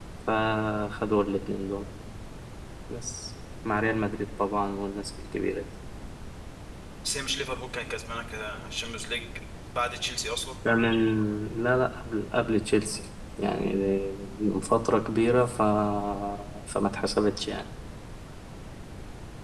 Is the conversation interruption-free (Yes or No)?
Yes